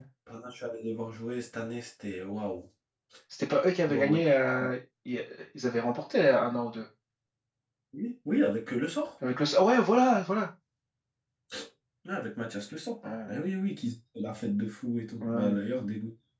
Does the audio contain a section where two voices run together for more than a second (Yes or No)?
No